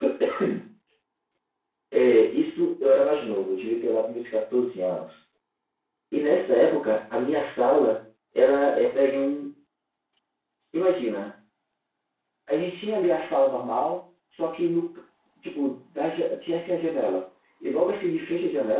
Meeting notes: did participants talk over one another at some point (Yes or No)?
No